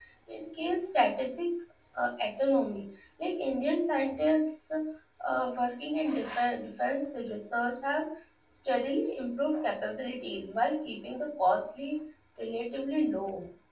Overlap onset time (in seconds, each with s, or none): none